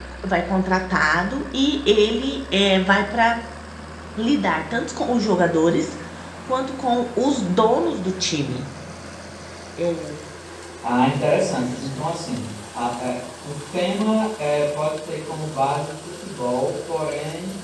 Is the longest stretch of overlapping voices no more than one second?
Yes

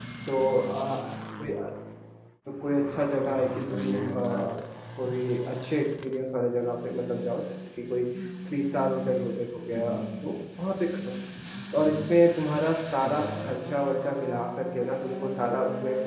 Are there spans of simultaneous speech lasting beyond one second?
Yes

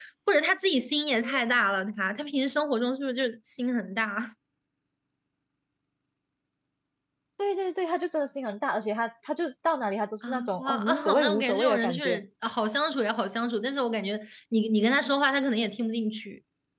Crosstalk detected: Yes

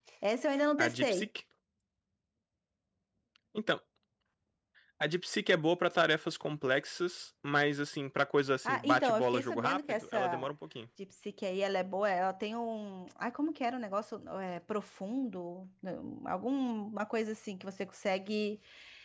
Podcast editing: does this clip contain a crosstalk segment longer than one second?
Yes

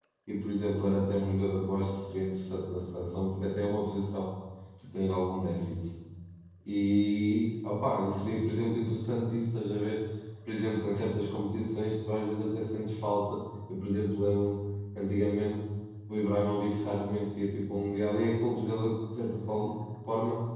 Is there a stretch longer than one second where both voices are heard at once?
No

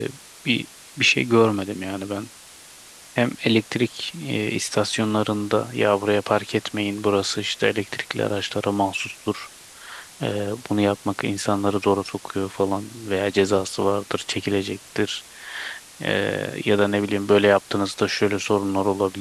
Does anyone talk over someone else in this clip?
No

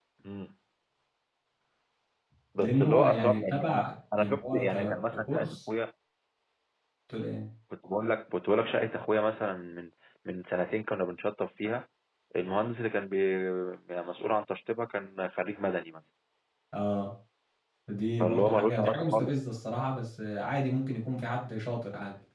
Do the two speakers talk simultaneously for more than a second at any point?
Yes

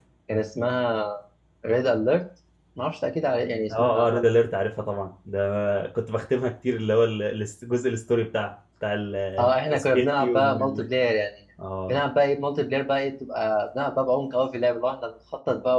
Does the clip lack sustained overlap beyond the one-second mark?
No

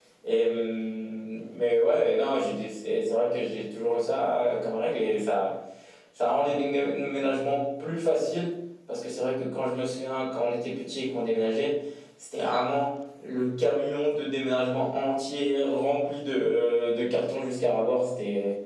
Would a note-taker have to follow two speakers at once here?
No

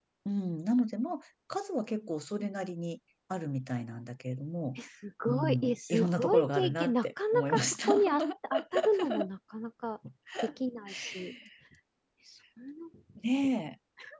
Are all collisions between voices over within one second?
No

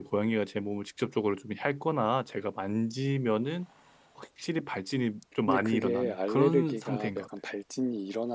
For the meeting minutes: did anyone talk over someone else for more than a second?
Yes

